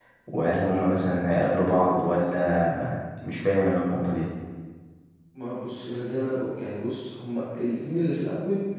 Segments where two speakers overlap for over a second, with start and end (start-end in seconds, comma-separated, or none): none